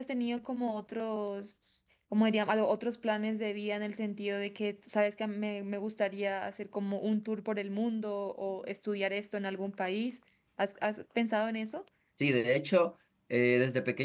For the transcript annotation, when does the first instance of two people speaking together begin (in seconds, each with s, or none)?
none